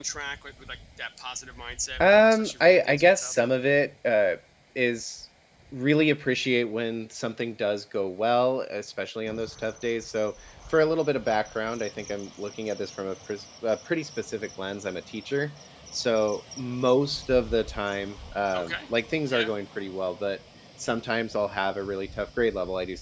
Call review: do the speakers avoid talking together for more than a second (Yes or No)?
No